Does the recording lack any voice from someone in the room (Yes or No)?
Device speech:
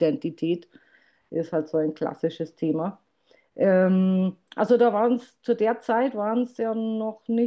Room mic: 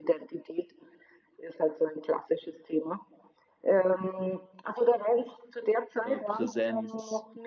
No